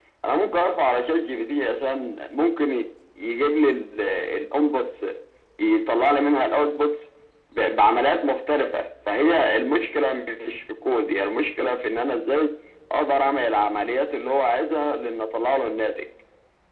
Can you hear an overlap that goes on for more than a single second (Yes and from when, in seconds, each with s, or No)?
No